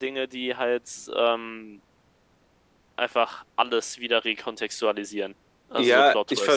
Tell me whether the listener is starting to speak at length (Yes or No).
Yes